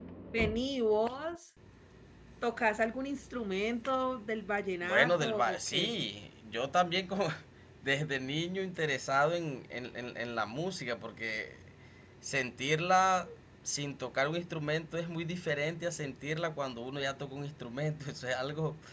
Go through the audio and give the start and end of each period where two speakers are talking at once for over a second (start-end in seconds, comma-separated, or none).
4.8-6.1